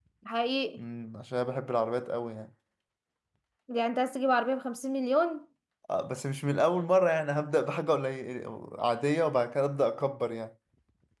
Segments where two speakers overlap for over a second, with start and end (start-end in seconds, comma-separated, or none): none